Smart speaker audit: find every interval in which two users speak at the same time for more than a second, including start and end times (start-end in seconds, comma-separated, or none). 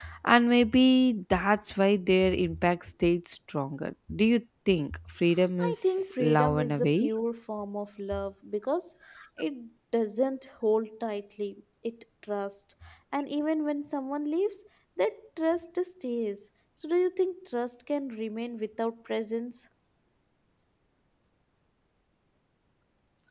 5.6-7.1